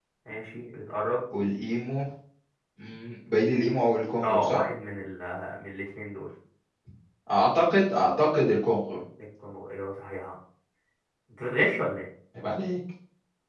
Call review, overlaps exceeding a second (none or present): none